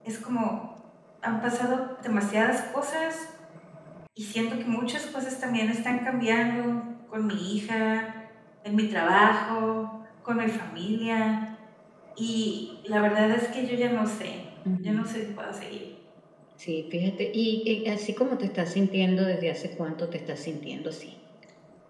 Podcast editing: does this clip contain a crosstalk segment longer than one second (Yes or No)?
No